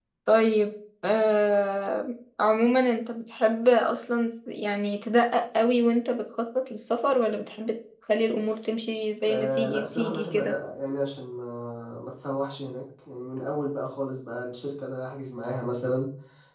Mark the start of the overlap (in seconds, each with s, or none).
9.2 s